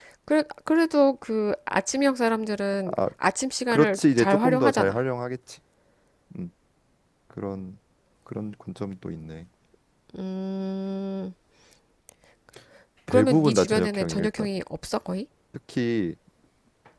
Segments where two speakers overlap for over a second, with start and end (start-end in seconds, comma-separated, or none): 3.7-5.0, 13.1-14.5